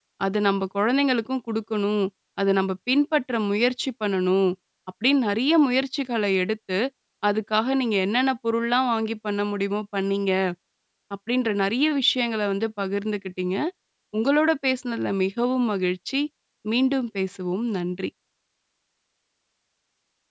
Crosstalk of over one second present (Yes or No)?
No